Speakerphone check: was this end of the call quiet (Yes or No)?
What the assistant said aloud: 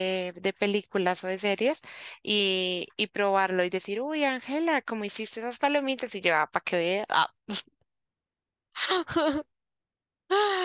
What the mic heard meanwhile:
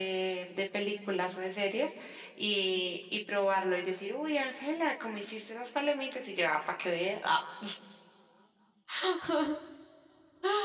Yes